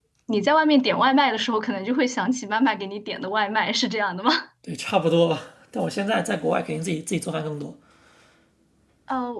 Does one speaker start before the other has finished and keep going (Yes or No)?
No